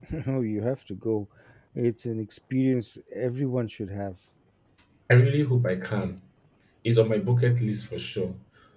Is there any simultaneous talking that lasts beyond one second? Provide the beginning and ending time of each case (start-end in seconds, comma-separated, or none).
none